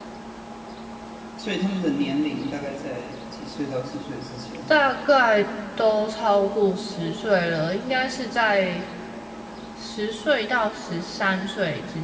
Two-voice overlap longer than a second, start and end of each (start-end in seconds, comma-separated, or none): none